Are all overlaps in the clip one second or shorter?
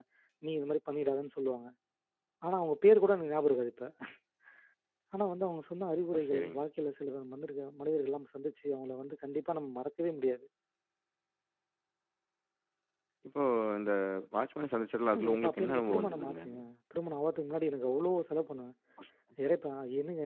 No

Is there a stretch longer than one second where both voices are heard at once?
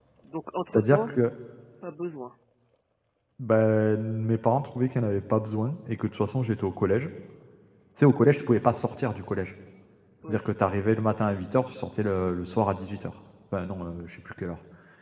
No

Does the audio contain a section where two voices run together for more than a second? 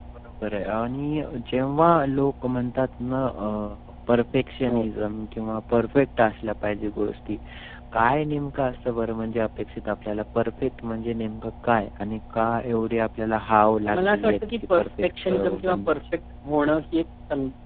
Yes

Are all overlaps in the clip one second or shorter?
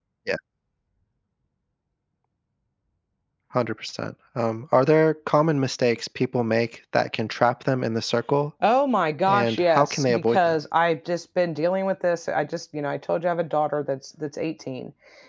No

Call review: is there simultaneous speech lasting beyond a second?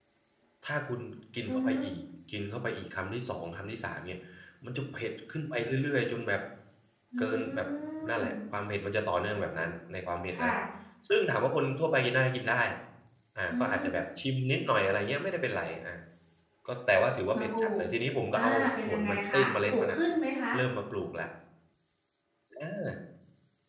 Yes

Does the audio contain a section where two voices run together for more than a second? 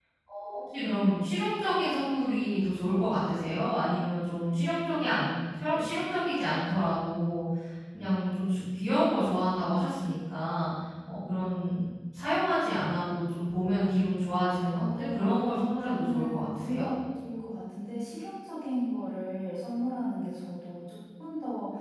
Yes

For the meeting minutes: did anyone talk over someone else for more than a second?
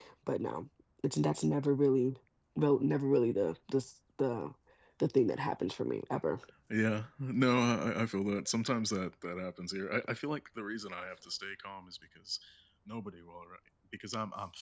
No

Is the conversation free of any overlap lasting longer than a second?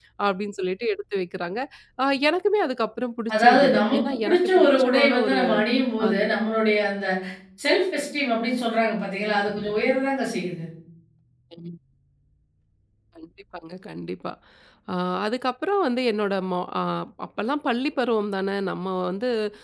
No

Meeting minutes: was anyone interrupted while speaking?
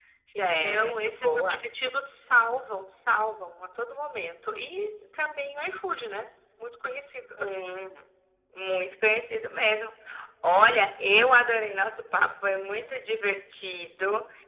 Yes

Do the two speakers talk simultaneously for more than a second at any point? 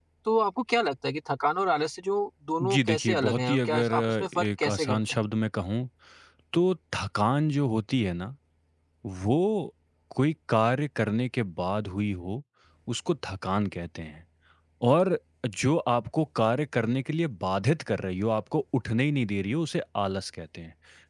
Yes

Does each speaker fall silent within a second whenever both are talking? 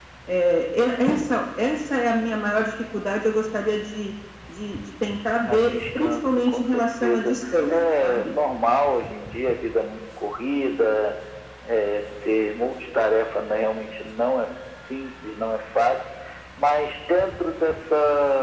No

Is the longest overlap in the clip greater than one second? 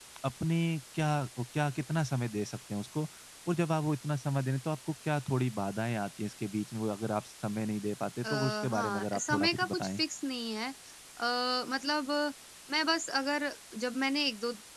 Yes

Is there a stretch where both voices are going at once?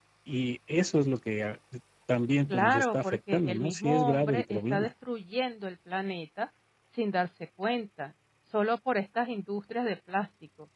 Yes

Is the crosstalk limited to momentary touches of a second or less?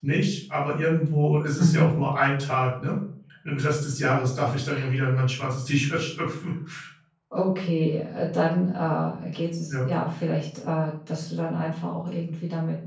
Yes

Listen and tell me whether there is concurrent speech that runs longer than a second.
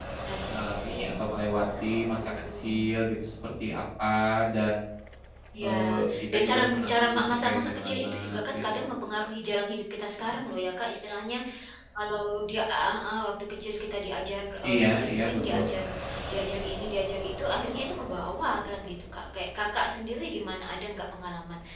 Yes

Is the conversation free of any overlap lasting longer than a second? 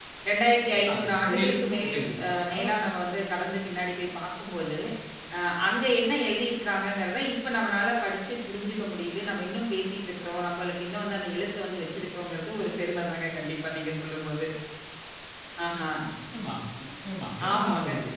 No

